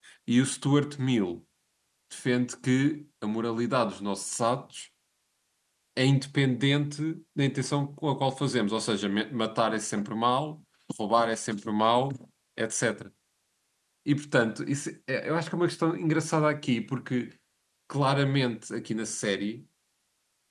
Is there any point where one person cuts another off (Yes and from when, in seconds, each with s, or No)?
No